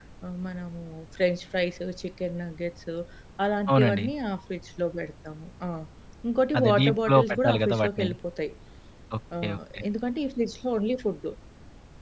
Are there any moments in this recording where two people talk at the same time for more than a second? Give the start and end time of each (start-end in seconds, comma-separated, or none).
6.6-8.1